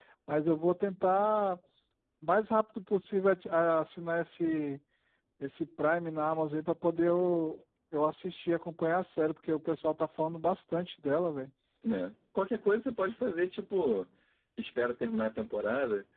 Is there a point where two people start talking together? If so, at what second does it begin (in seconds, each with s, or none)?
none